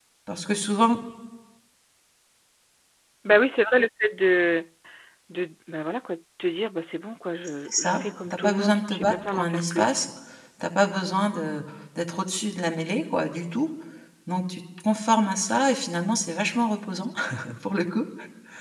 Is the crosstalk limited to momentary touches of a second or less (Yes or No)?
No